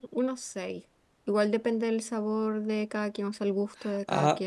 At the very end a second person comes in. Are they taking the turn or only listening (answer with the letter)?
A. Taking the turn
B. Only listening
A